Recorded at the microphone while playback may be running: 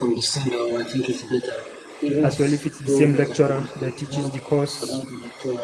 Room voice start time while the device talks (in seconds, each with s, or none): 2.2 s